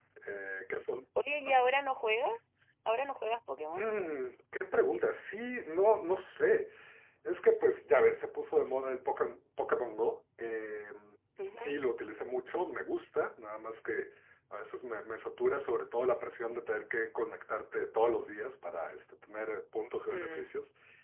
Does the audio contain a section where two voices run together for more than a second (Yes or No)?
No